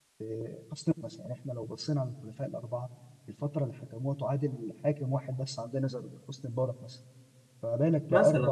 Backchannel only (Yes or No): Yes